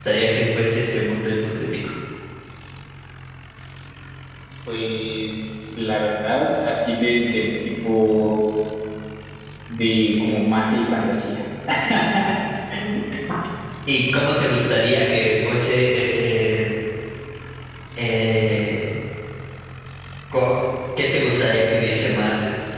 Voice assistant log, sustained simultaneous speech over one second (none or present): none